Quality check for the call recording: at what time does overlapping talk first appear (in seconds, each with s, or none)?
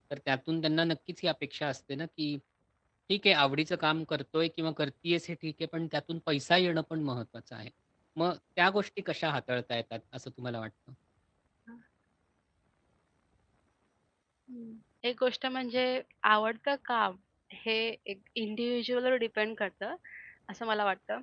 none